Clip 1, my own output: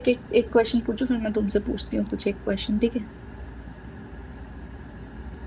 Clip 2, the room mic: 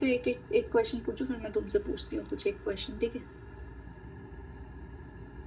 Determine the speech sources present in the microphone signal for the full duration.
echo only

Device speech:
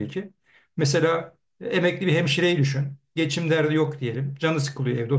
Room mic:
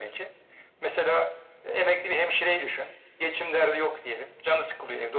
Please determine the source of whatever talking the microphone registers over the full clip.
echo only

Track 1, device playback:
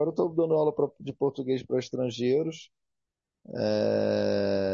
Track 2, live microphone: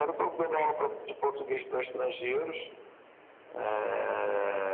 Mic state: echo only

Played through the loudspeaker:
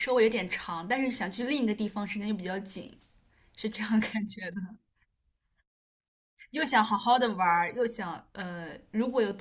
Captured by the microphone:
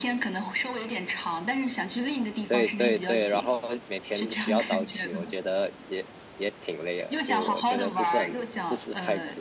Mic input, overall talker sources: both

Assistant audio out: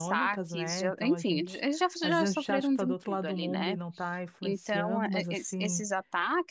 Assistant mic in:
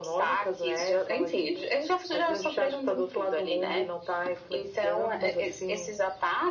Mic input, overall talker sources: echo only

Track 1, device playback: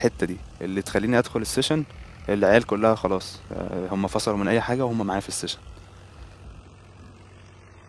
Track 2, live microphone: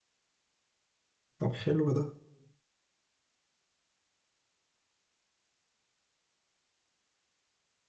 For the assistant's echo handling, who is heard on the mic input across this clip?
user only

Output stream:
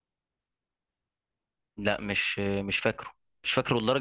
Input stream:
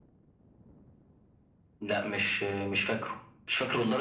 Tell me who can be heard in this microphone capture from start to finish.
echo only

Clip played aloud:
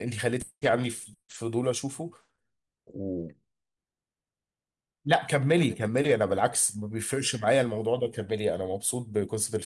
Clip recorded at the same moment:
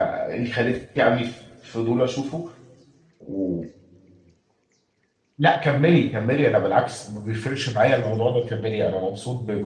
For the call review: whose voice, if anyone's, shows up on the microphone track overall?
echo only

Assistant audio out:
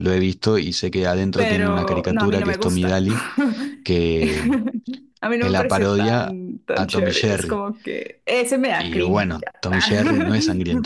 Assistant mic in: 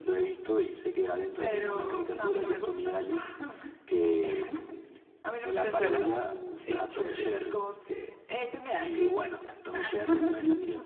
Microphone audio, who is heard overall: both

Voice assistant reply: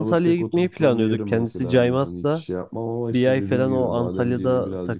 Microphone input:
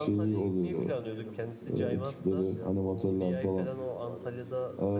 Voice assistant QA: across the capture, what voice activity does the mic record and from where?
both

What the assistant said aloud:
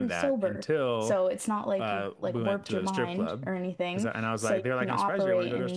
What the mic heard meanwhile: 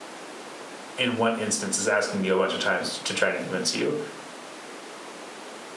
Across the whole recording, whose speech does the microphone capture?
user only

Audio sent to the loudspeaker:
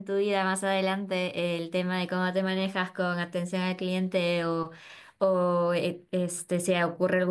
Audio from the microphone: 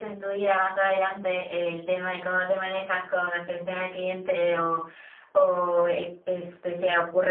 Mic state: echo only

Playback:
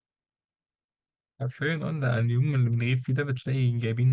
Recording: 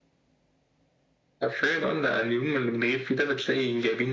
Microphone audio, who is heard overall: echo only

